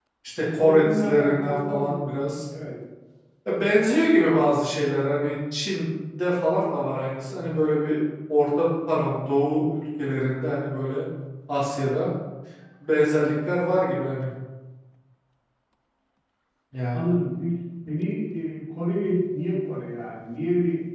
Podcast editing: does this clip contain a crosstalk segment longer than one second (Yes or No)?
Yes